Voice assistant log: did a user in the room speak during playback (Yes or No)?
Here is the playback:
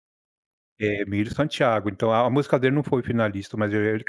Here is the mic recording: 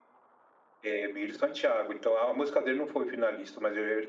No